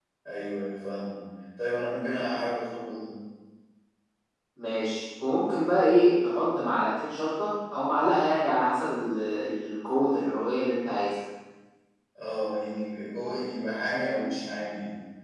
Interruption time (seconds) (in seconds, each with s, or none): none